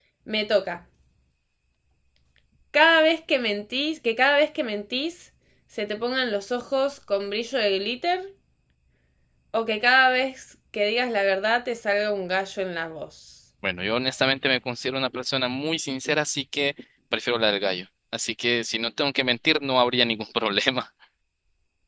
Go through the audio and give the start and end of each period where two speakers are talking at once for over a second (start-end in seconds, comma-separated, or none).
none